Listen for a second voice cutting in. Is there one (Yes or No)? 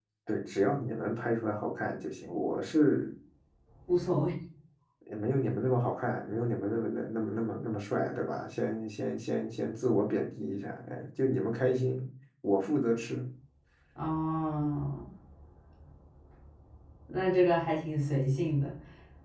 No